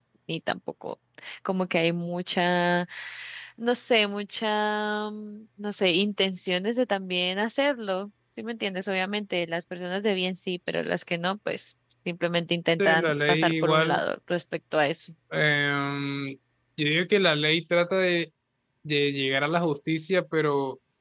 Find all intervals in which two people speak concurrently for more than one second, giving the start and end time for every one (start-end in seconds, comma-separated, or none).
12.8-14.0